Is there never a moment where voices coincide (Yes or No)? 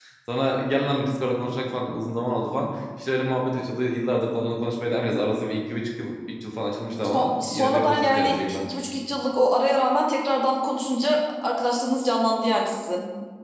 No